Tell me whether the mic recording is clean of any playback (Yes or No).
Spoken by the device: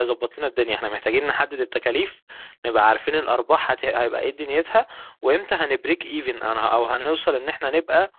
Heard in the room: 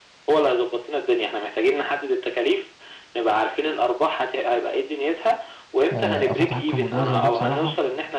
No